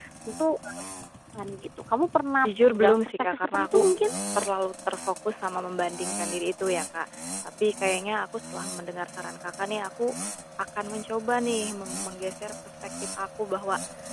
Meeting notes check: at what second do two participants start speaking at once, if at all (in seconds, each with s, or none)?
2.4 s